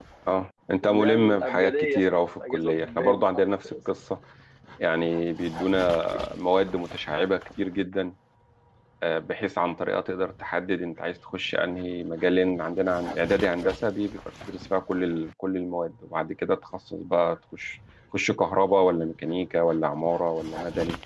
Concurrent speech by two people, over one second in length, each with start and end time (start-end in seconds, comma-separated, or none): 0.8-3.5